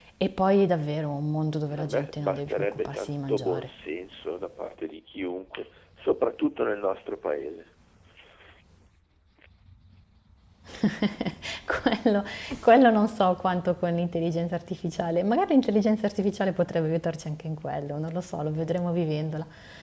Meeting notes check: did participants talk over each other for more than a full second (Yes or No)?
Yes